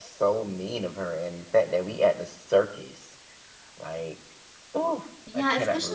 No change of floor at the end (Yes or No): No